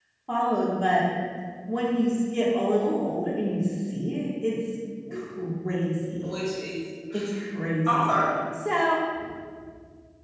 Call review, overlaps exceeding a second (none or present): none